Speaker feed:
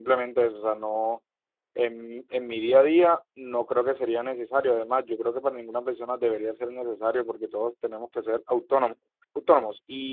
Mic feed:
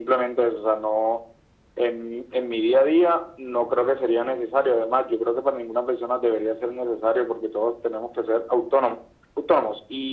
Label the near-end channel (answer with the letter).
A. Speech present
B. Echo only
B